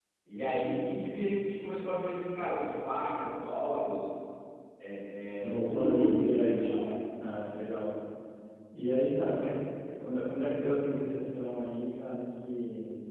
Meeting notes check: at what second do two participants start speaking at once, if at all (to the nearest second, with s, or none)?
5 s